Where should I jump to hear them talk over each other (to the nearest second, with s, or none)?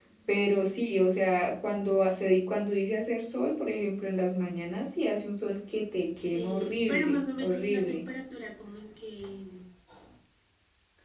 6 s